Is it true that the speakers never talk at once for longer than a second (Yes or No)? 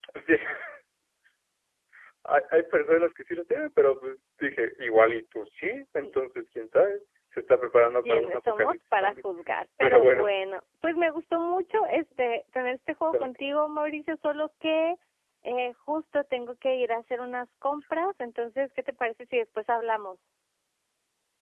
No